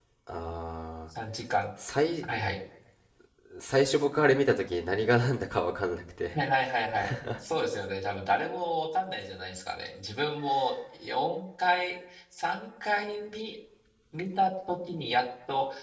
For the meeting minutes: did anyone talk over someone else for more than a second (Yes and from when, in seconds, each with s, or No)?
No